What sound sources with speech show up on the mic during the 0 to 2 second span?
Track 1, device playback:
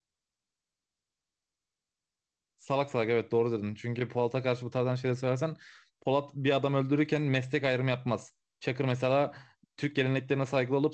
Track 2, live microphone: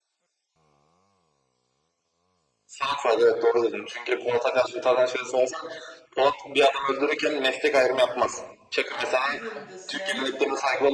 neither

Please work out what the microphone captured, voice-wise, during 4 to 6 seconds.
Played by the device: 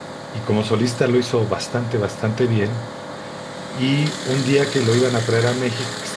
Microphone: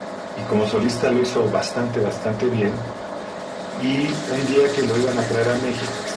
echo only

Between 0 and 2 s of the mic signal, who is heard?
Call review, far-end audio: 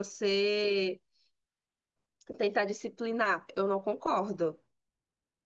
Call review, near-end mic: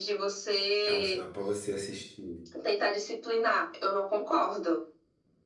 both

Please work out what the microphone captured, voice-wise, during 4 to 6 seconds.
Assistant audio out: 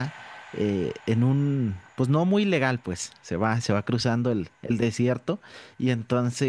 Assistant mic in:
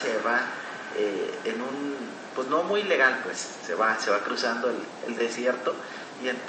echo only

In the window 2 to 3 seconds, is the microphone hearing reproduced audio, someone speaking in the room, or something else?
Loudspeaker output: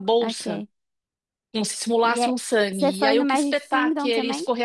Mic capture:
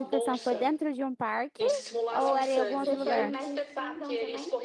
both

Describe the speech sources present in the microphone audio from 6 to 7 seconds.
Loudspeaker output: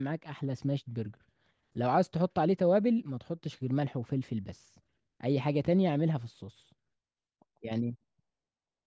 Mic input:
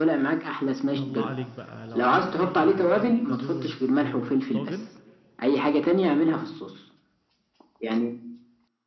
echo only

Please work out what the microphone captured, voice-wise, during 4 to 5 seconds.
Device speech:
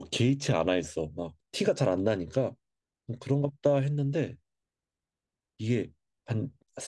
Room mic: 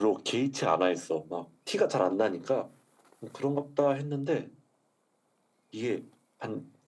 echo only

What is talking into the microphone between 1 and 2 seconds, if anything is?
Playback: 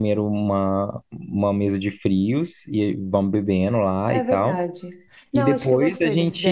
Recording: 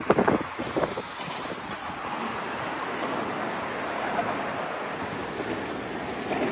neither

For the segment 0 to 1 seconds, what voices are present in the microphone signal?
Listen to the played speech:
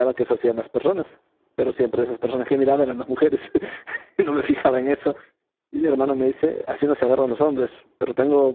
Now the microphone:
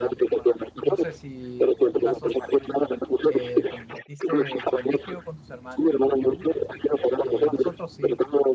both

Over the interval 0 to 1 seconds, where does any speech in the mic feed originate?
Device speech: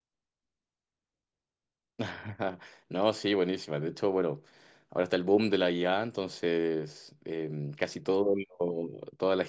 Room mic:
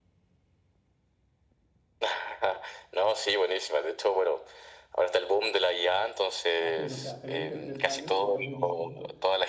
neither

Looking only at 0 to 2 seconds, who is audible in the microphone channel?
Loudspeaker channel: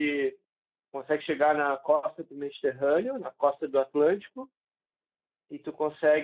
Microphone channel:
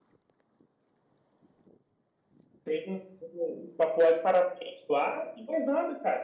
neither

